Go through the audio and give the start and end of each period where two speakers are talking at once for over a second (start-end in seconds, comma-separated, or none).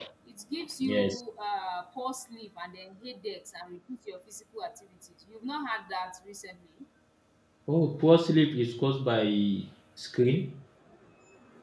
none